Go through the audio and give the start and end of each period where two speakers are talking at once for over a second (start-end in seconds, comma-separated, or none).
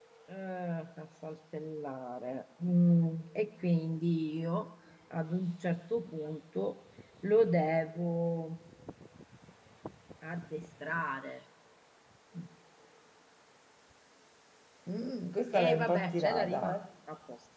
15.5-16.8